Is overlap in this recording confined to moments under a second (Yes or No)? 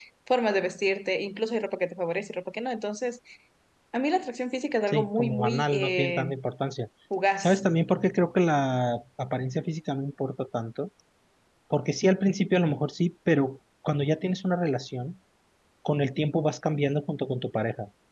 No